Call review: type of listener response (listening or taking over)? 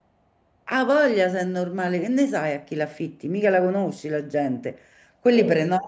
listening